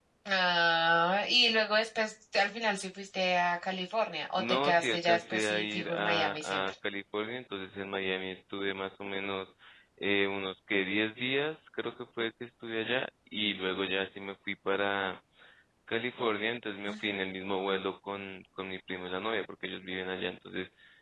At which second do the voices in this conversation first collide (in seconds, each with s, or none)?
4.4 s